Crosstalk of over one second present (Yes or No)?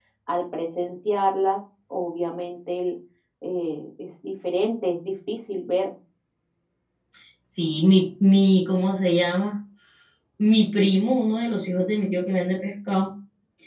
No